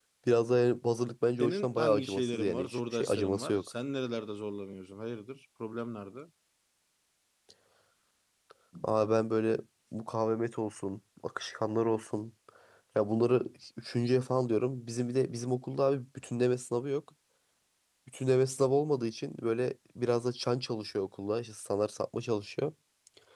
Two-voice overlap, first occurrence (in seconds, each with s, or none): 1.4 s